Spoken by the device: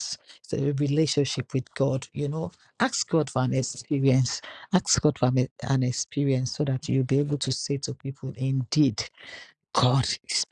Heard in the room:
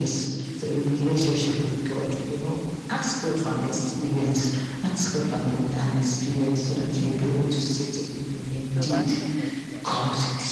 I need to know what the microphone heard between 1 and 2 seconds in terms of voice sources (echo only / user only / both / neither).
echo only